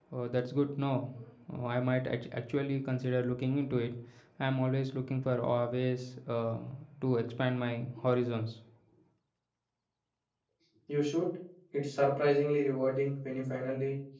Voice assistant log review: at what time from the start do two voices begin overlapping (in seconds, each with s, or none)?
none